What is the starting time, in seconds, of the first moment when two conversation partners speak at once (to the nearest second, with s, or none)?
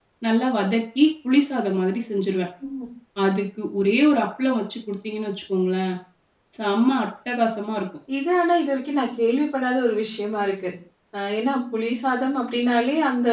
none